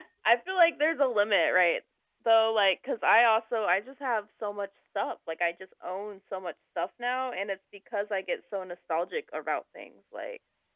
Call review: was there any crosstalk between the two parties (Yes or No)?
No